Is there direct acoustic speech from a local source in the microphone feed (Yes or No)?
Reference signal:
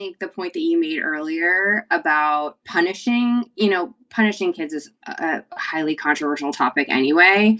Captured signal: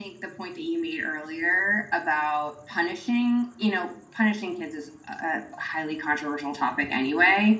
No